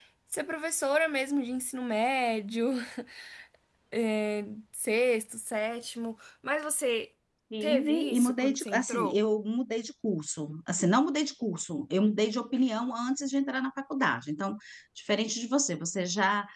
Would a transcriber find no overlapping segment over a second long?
No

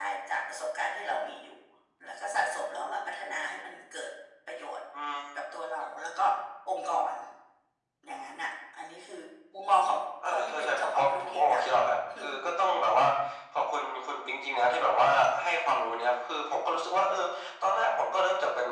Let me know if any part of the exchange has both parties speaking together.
Yes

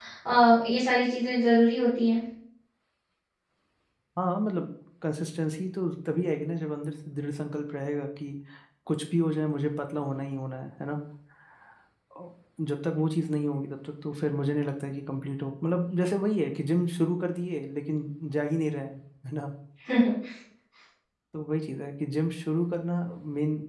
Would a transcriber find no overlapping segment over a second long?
Yes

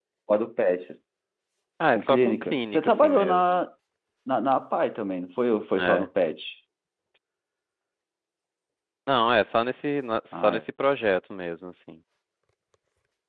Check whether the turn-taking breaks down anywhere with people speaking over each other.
Yes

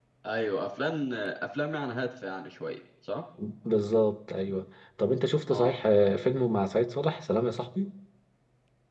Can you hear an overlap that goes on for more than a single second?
No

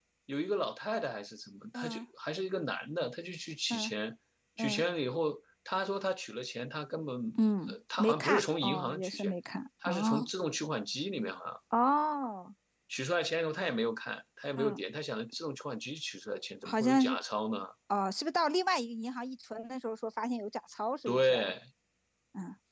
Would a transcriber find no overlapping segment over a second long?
No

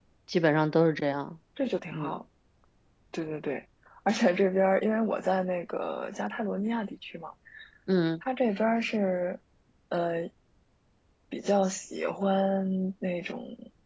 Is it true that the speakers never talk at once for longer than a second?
Yes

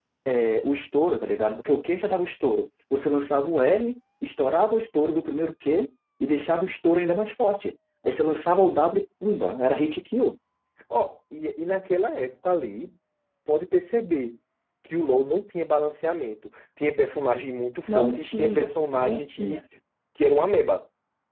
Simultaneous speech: Yes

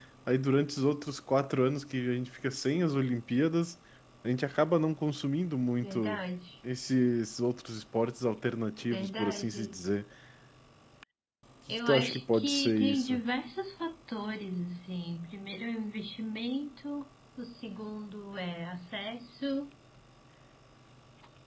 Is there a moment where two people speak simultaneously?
Yes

